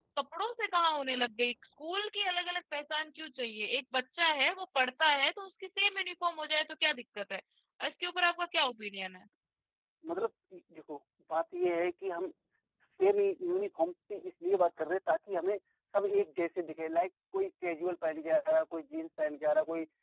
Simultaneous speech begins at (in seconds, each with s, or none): none